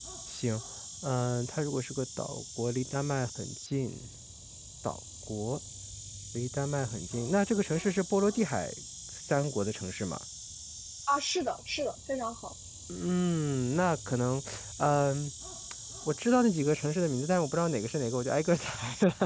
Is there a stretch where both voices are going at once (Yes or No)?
No